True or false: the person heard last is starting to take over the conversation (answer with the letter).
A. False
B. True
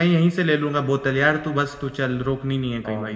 B